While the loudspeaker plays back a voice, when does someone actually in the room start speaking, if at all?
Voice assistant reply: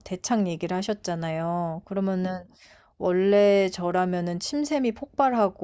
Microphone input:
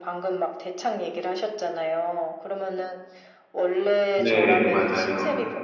4.1 s

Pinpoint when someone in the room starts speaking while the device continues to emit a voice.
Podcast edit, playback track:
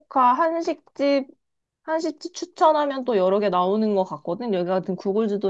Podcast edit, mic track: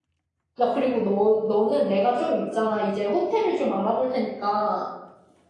0.6 s

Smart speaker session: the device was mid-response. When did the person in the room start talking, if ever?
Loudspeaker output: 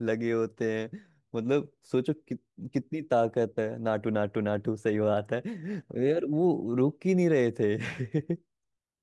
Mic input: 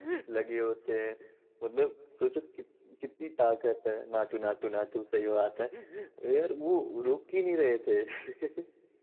none

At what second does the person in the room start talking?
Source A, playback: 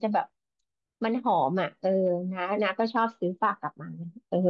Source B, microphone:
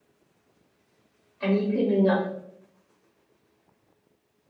1.4 s

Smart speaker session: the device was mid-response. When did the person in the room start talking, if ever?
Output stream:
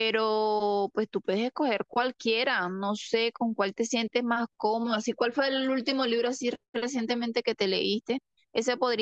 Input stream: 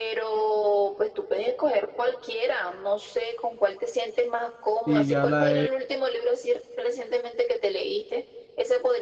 4.9 s

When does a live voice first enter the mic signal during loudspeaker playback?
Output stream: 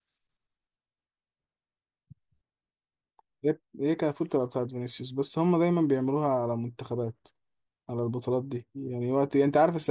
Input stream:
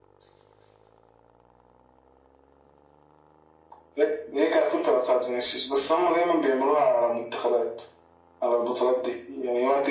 none

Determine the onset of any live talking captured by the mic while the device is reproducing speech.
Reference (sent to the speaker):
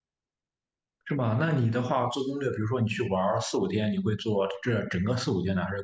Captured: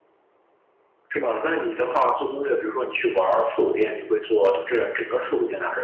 none

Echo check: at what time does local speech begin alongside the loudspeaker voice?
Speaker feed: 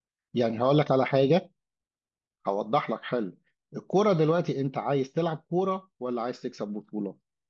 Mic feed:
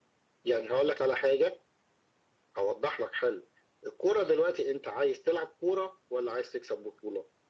none

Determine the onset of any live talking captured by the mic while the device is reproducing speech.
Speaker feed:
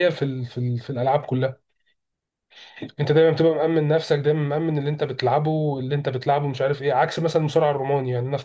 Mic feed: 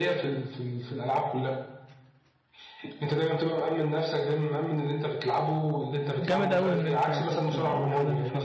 6.2 s

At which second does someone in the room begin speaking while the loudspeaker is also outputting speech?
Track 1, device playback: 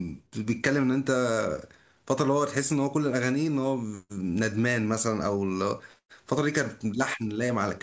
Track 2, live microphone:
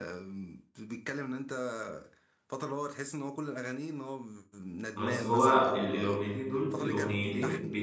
5.0 s

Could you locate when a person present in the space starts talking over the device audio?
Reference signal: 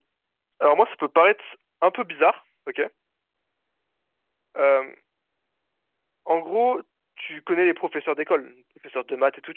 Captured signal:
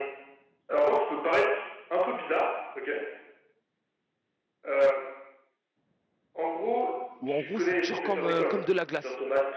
7.2 s

